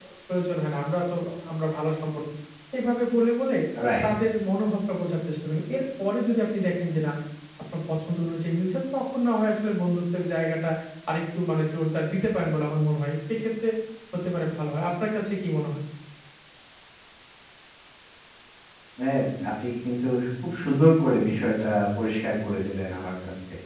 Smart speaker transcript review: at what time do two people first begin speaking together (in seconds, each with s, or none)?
none